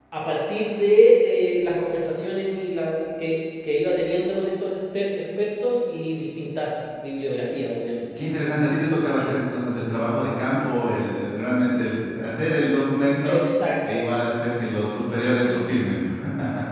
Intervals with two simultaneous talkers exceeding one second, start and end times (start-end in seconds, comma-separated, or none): none